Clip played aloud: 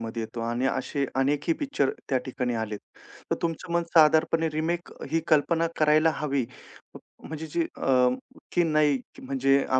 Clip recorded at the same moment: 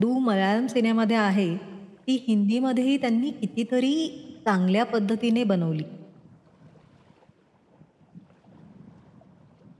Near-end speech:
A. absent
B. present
B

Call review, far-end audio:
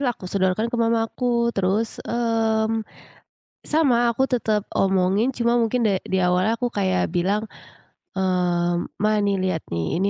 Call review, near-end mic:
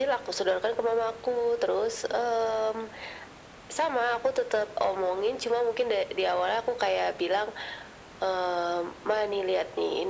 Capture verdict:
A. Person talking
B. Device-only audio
B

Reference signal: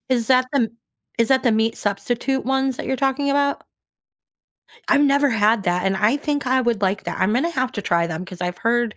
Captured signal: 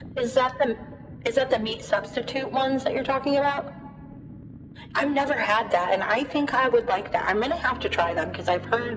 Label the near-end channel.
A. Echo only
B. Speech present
A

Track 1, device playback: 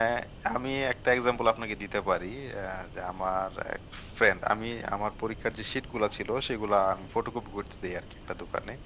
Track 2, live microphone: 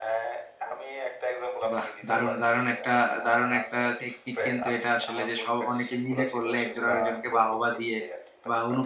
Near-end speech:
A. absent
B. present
B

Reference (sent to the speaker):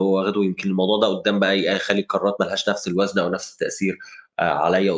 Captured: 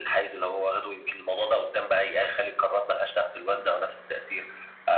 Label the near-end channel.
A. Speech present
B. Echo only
B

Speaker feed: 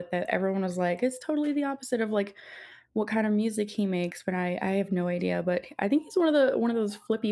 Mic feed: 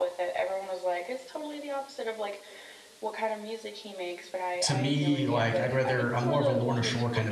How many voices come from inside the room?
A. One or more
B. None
A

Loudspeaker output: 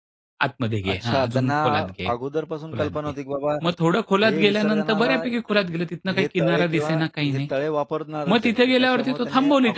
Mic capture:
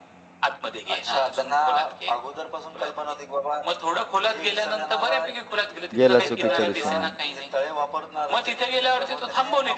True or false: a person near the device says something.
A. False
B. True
B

